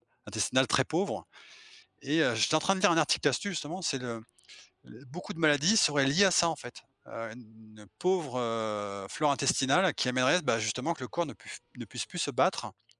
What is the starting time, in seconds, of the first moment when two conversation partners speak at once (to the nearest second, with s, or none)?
none